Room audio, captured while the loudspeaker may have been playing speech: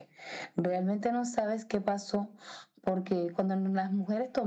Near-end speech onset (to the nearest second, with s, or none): none